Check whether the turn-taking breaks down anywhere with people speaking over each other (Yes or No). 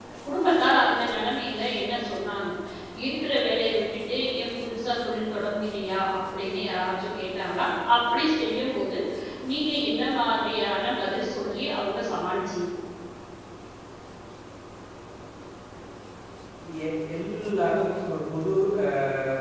No